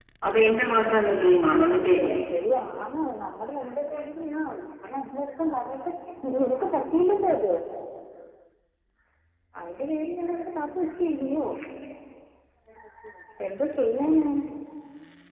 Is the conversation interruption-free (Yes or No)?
Yes